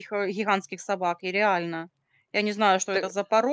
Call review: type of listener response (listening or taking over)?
listening